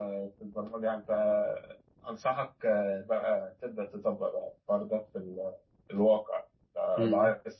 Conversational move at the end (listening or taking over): listening